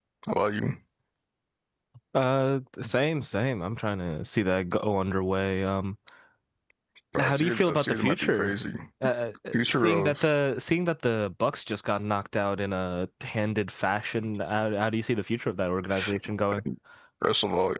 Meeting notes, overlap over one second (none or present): present